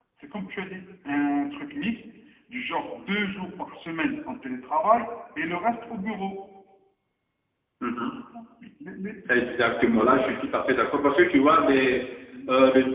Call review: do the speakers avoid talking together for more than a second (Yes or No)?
Yes